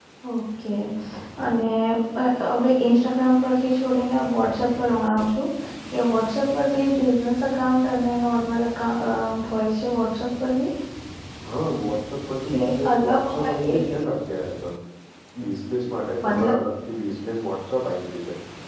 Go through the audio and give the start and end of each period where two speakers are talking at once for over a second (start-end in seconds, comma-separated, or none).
12.5-14.2